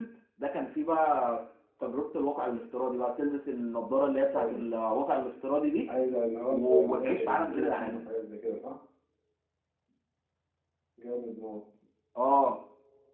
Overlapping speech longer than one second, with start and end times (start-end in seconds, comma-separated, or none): 6.5-8.0